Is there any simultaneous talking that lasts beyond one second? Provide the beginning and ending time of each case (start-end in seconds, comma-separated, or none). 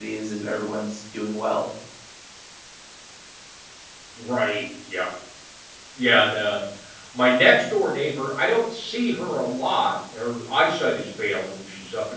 none